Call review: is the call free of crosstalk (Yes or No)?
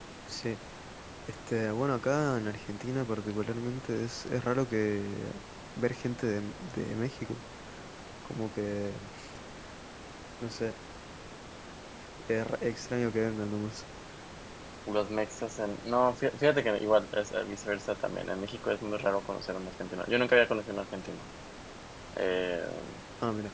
Yes